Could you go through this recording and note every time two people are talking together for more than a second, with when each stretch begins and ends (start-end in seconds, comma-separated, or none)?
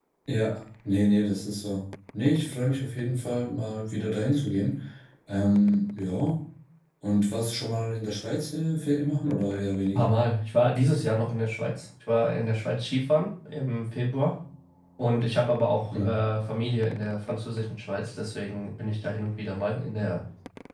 none